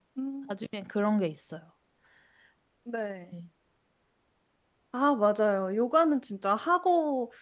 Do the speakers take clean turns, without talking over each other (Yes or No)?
Yes